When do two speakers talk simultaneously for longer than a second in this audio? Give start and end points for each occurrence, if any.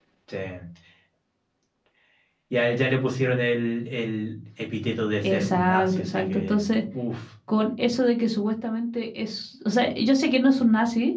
5.2-6.7

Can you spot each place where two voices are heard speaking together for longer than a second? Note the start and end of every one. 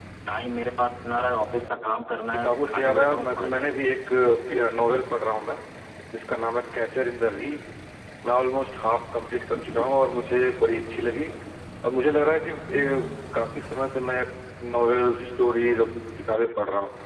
2.3-3.6

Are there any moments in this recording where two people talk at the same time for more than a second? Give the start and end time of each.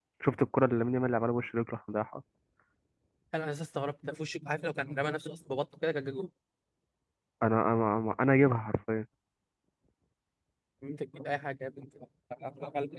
none

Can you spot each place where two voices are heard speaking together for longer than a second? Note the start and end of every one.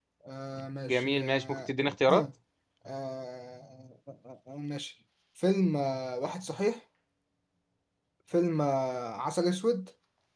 0.9-2.2

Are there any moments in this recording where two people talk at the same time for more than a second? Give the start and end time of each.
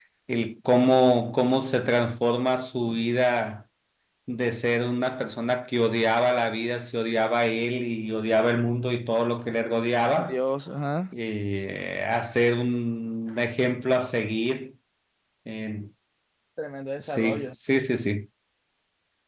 none

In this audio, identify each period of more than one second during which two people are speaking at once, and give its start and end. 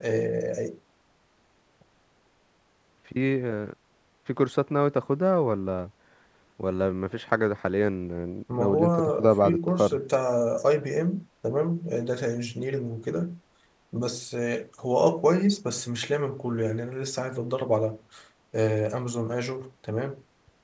8.6-10.0

